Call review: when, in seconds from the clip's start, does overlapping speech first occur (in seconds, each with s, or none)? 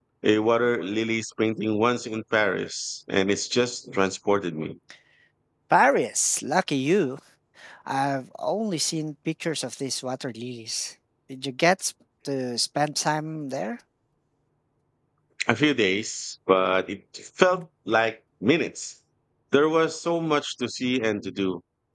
none